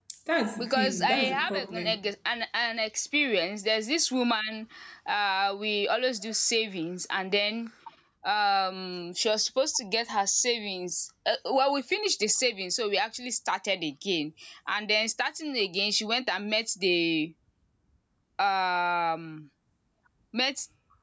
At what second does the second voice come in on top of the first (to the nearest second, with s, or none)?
1 s